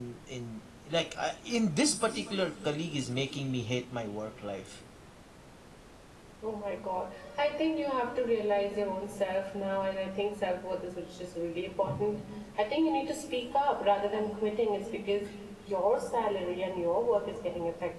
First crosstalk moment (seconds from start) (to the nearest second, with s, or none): none